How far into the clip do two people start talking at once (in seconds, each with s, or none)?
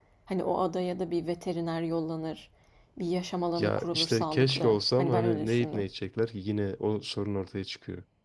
3.6 s